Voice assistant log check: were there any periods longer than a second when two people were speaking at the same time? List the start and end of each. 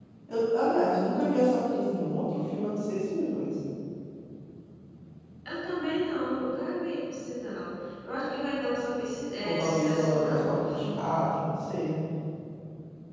9.4-11.0

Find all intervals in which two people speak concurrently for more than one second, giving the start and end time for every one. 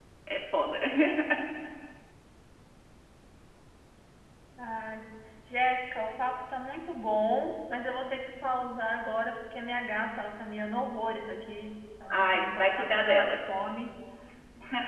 12.1-13.4

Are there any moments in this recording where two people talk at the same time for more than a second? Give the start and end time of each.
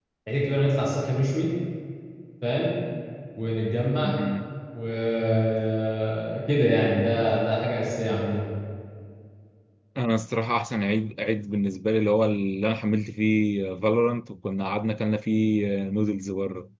none

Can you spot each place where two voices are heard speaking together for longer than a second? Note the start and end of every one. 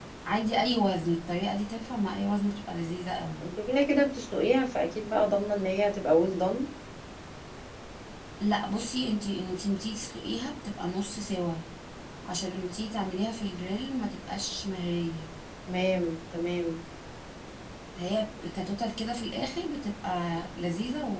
none

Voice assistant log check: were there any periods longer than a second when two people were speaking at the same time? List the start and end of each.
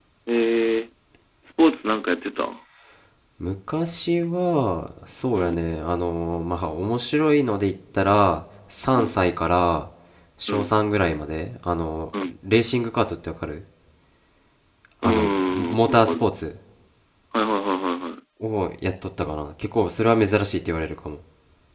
15.0-16.3

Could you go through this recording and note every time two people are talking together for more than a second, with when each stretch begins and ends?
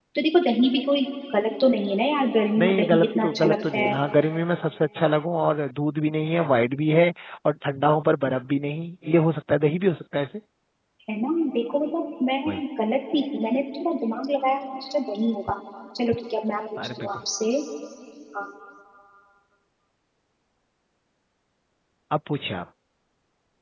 2.6-3.9

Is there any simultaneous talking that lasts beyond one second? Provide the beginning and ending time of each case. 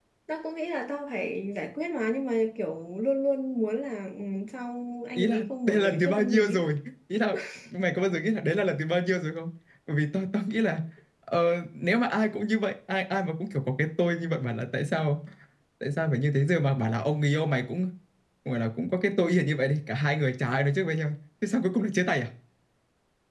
5.2-6.6

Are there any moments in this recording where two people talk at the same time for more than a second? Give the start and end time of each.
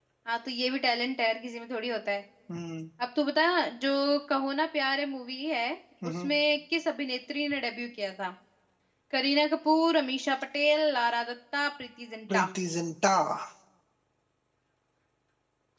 none

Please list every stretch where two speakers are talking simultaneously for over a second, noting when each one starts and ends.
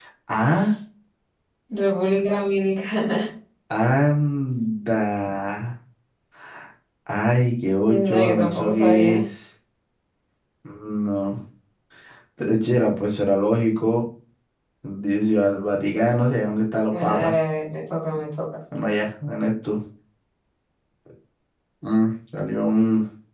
7.8-9.2

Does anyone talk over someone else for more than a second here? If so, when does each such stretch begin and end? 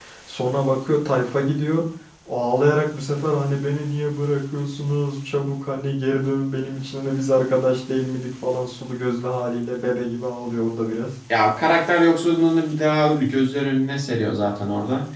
none

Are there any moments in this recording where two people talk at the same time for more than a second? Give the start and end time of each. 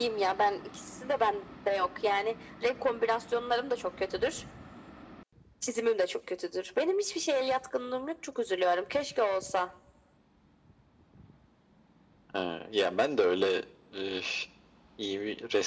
none

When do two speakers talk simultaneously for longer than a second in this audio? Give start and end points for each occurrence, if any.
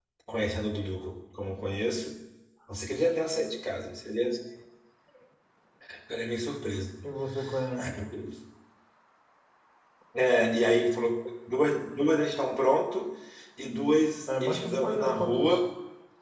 14.3-15.6

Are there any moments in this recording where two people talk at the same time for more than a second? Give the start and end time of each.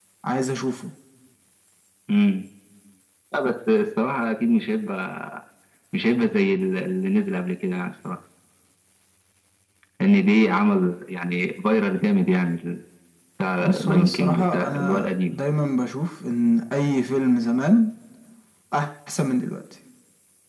13.6-15.4

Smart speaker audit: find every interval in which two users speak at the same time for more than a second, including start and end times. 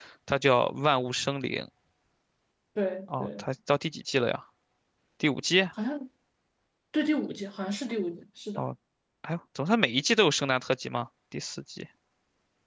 none

